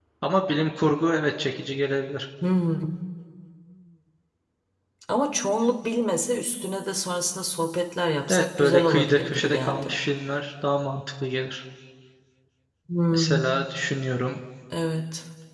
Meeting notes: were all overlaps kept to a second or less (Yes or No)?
No